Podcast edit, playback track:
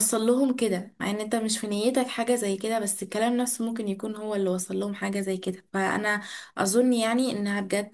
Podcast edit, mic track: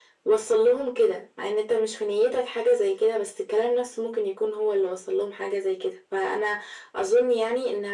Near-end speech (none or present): none